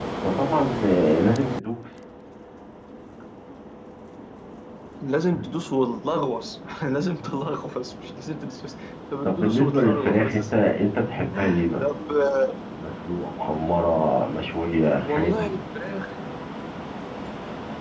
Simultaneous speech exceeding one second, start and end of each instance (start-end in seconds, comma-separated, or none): 9.2-10.5